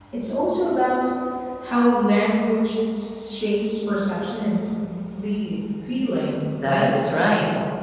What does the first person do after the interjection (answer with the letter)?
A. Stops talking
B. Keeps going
A